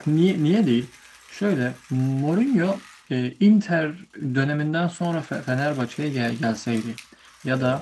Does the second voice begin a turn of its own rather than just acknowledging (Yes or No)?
No